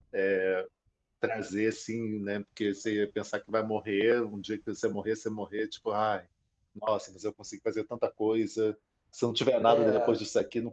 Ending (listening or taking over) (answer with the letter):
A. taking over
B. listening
B